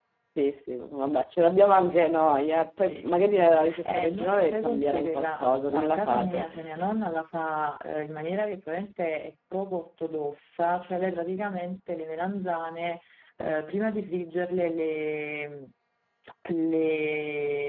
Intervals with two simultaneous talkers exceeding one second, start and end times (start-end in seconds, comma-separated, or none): 3.8-6.5